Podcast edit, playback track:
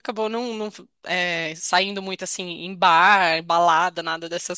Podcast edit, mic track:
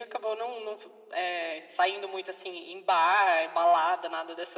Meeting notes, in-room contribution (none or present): none